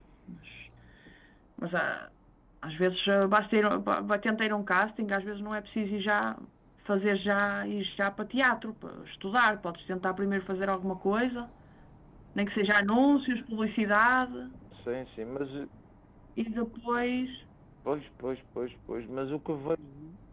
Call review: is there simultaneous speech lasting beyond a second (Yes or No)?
No